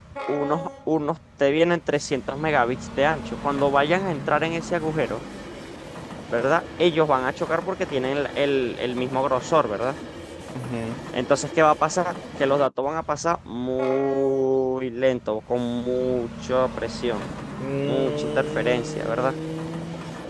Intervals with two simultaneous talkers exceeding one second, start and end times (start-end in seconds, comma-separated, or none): 17.8-19.3